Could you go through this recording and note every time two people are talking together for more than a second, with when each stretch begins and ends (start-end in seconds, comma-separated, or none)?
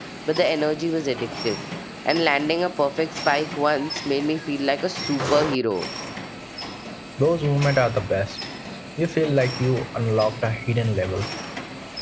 none